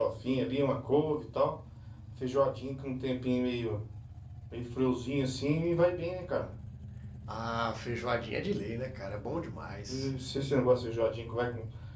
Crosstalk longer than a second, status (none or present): none